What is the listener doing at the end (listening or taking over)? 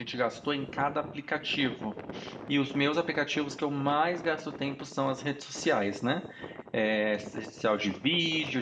listening